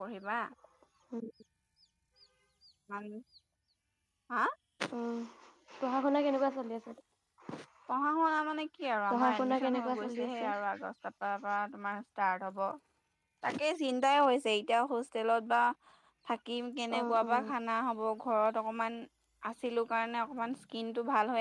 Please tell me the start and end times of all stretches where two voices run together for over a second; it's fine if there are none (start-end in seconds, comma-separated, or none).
9.1-10.4